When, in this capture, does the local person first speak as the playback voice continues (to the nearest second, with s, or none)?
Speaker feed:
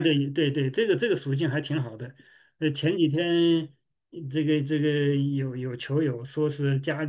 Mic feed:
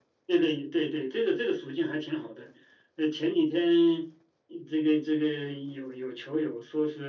none